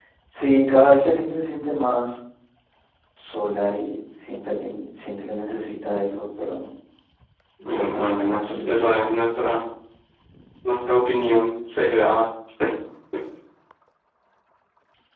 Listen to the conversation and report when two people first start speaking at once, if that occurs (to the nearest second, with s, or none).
8 s